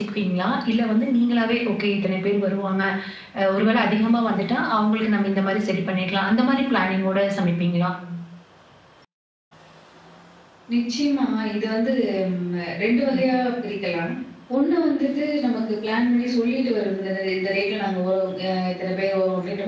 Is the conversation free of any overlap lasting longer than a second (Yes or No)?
Yes